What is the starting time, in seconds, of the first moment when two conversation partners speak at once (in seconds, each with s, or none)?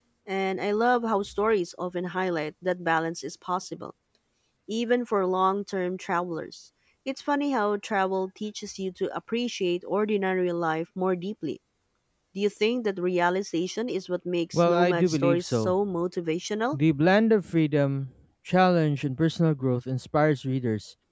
14.5 s